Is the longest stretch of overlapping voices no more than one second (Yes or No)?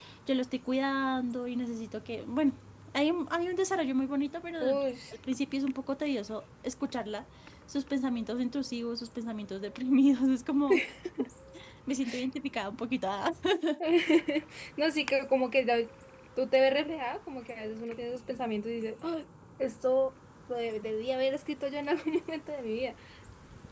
Yes